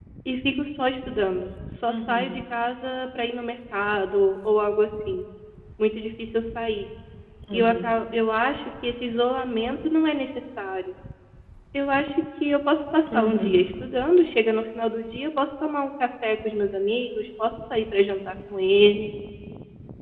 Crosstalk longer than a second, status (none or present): none